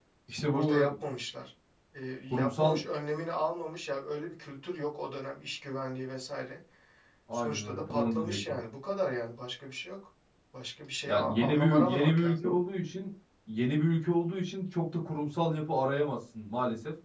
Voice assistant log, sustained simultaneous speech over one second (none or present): present